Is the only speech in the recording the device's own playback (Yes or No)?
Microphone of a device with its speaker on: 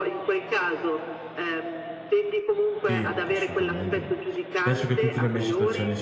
No